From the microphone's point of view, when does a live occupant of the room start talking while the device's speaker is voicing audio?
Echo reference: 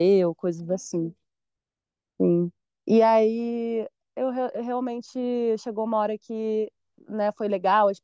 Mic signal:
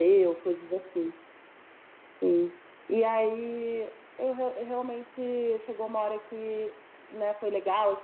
none

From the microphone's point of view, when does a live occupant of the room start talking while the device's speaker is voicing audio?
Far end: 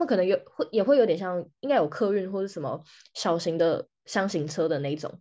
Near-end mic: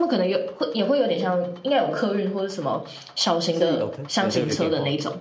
4 s

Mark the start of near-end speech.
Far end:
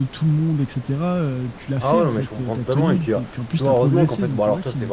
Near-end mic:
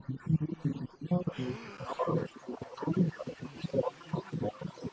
none

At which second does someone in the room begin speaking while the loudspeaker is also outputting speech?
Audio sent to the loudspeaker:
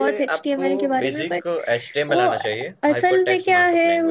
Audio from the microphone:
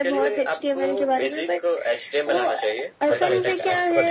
3 s

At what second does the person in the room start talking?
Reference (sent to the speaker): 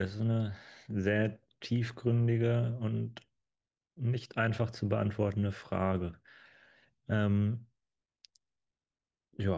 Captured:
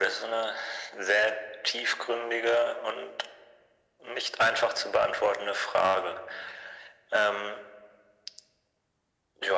none

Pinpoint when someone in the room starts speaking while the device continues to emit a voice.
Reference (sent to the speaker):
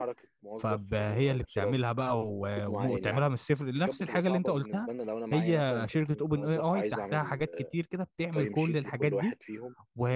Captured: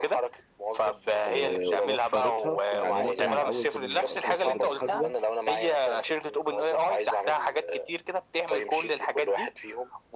1 s

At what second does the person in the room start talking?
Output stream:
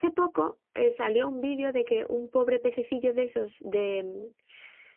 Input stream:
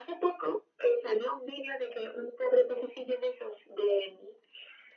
none

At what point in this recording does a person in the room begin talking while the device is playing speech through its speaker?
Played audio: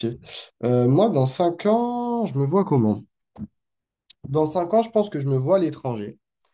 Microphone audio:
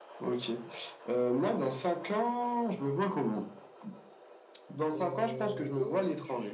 5 s

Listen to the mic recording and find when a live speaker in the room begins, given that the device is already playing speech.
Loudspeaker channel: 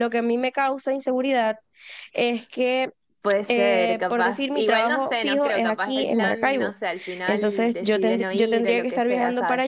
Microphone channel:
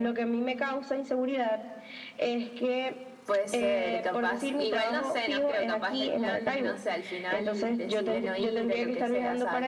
none

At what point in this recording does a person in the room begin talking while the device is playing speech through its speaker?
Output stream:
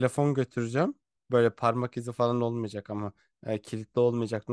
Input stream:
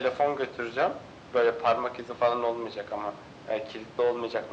none

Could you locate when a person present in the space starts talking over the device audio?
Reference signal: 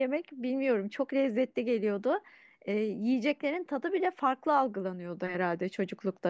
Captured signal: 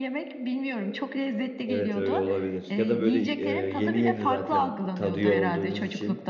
2 s

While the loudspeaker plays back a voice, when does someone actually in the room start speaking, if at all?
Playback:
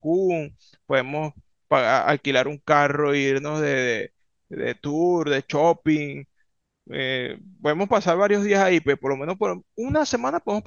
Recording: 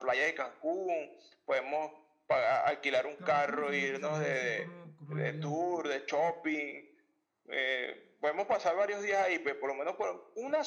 3 s

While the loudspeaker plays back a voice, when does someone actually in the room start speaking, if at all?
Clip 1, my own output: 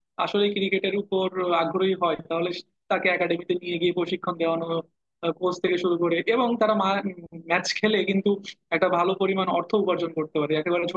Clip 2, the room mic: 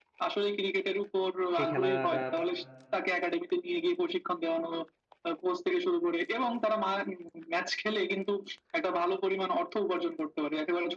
2 s

